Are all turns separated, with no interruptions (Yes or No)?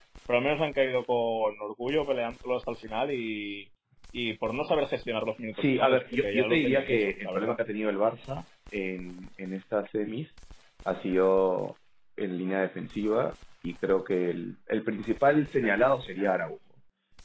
No